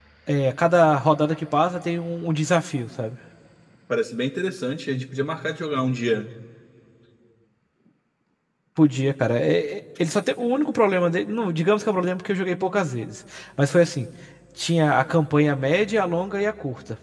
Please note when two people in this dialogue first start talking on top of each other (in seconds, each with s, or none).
none